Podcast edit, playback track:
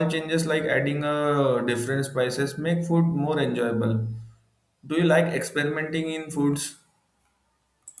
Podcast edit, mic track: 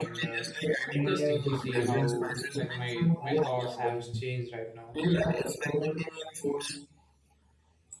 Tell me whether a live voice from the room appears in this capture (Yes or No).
Yes